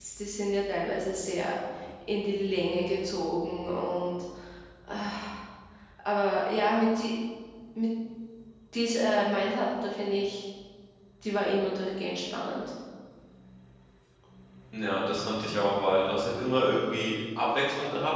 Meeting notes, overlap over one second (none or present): none